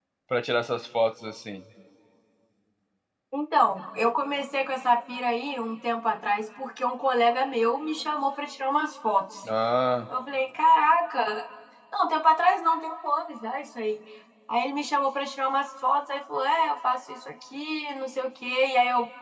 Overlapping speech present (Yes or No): No